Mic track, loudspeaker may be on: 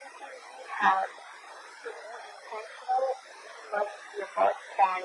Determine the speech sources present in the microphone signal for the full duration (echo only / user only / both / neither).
echo only